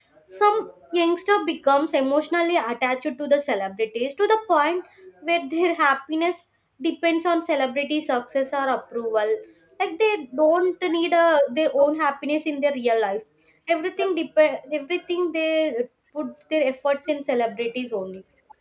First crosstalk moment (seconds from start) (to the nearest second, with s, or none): none